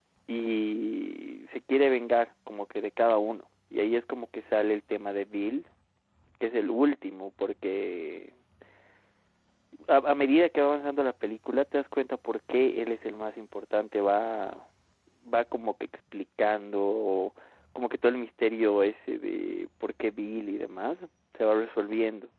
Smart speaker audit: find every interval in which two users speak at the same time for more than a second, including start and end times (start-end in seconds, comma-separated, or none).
none